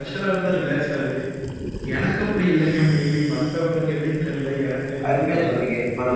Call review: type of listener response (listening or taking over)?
taking over